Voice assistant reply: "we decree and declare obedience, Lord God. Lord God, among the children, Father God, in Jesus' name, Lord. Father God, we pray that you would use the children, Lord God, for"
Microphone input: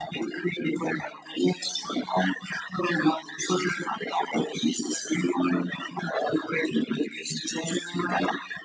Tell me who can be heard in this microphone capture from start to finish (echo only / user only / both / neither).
echo only